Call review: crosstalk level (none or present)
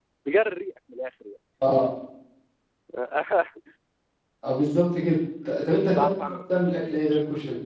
present